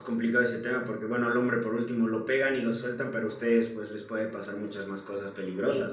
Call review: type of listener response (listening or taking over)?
taking over